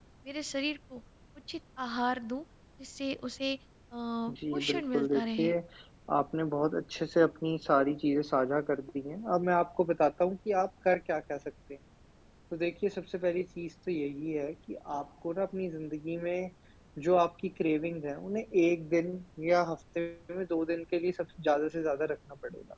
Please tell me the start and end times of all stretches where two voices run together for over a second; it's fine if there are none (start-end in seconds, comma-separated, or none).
4.3-5.5